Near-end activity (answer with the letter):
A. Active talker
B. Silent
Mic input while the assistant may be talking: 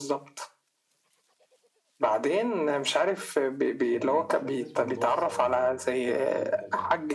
A